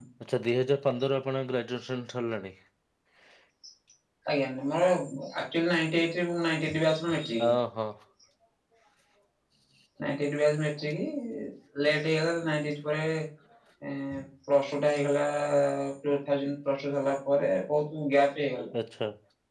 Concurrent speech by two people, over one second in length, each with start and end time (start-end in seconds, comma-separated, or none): none